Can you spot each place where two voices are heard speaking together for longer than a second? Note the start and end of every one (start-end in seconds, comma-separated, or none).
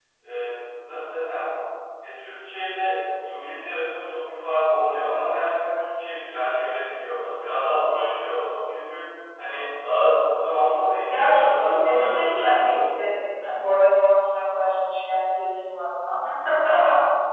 11.1-12.8